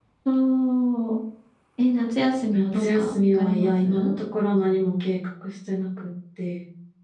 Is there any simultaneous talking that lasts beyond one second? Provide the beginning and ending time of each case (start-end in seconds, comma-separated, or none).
2.5-4.1